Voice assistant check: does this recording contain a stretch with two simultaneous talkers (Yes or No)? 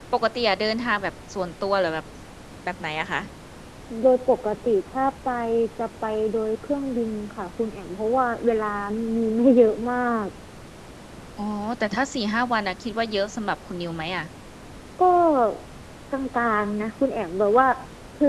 No